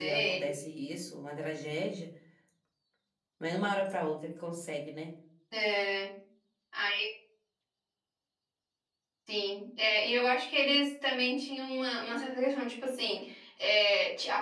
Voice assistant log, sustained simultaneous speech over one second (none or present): none